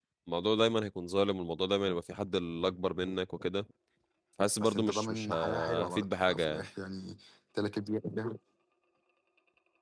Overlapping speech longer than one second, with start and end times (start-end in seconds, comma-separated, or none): 4.6-6.7